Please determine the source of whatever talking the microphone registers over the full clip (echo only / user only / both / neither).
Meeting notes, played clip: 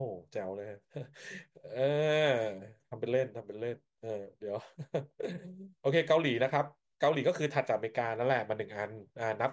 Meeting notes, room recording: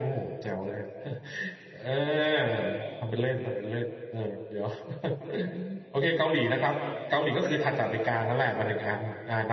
echo only